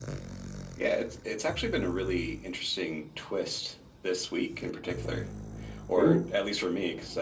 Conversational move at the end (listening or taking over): listening